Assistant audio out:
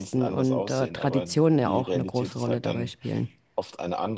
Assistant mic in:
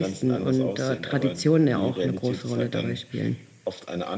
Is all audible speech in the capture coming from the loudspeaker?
Yes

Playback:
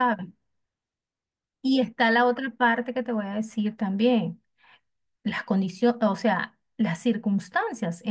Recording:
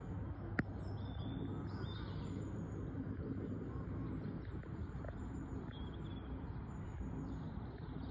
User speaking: No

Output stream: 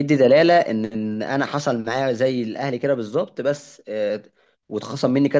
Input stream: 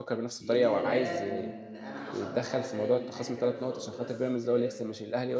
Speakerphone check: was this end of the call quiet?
No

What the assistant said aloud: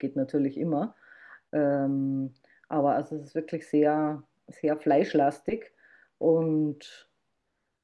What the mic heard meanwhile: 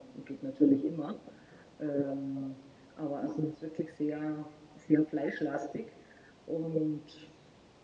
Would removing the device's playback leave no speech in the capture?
Yes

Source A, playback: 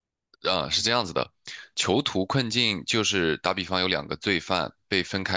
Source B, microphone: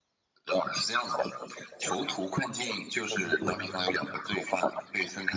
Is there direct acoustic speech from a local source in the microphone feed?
Yes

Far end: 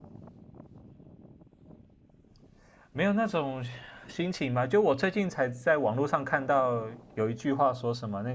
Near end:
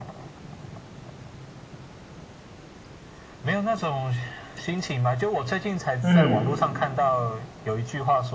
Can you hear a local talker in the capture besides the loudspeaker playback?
Yes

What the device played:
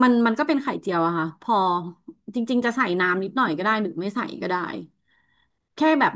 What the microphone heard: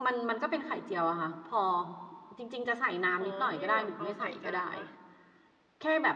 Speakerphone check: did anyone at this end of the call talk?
Yes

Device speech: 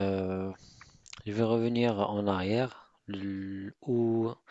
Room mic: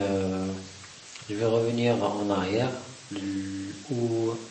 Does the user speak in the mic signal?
No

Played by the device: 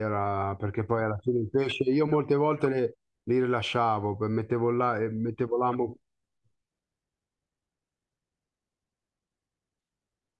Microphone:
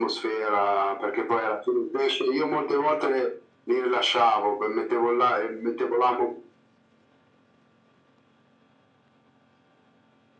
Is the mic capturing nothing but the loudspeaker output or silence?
Yes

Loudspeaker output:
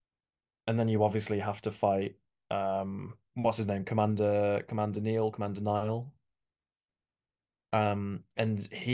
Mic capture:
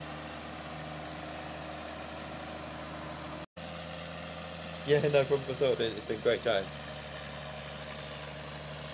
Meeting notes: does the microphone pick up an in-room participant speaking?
Yes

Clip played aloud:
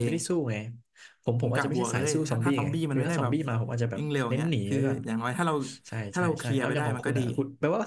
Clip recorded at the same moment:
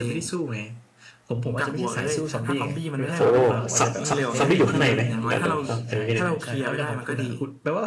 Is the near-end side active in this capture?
Yes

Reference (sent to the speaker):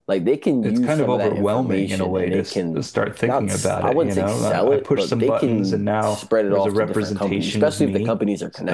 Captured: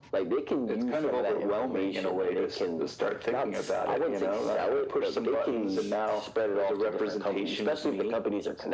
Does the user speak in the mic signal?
No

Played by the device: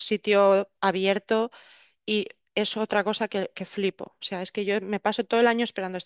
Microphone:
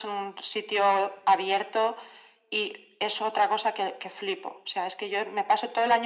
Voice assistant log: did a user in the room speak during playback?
No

